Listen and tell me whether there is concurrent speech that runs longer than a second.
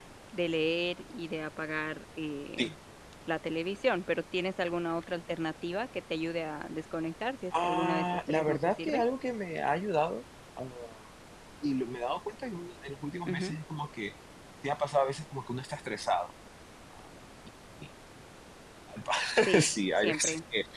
Yes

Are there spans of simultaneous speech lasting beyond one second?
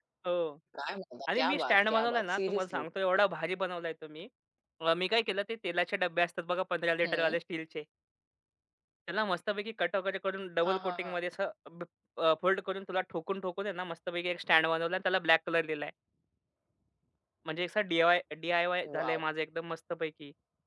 Yes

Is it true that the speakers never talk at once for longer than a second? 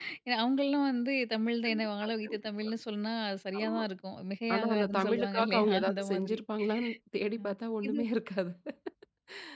No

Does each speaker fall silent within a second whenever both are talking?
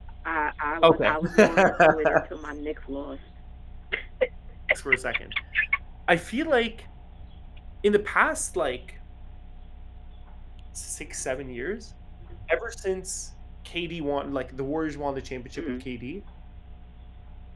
No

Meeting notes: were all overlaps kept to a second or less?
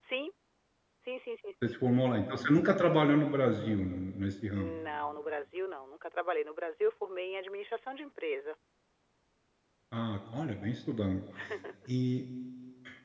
Yes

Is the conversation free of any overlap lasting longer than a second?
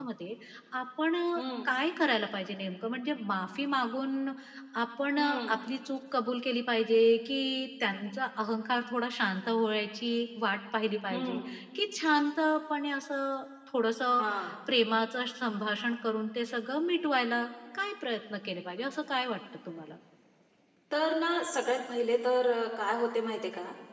Yes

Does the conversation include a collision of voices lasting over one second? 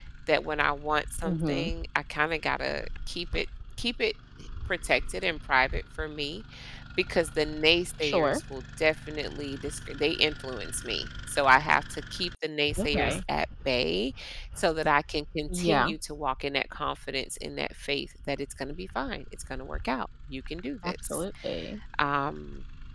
No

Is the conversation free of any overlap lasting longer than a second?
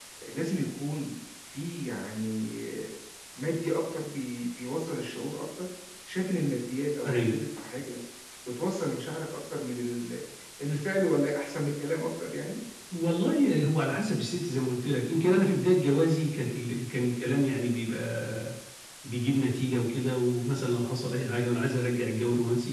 Yes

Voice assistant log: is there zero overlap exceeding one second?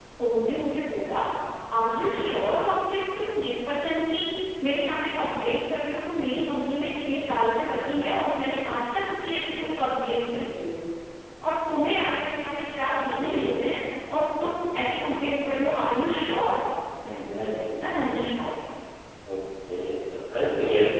Yes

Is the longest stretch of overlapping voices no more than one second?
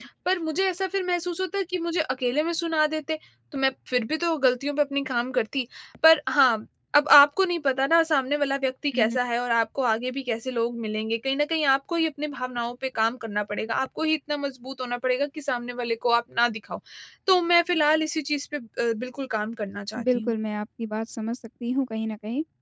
Yes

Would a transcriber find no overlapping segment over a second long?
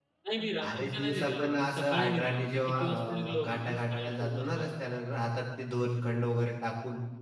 No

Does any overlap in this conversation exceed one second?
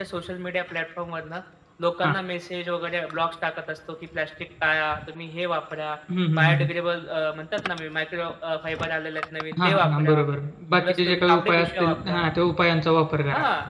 Yes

